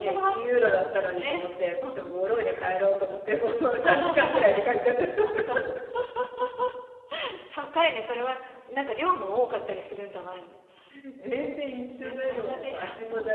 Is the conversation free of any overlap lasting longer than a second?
No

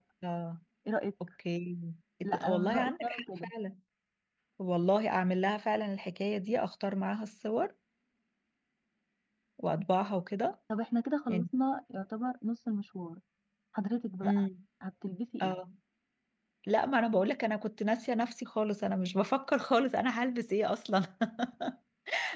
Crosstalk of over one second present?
Yes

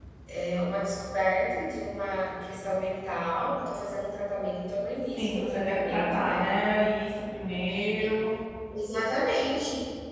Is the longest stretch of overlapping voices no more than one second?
No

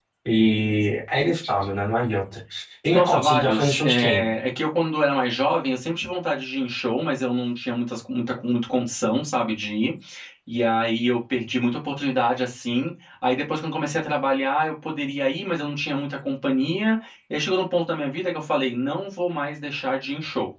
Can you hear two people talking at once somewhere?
Yes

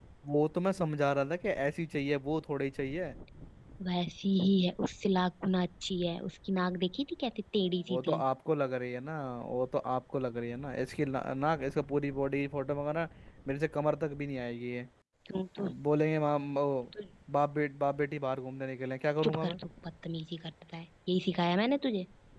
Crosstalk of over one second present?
No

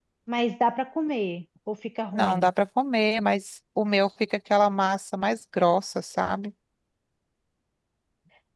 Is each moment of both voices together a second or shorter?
Yes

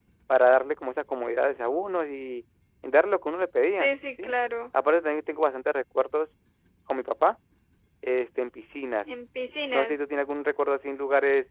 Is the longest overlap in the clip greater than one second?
No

